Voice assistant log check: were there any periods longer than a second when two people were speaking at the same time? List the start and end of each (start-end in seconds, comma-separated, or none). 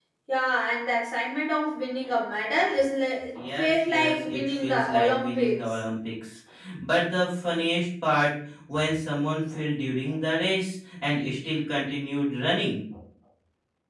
3.3-5.7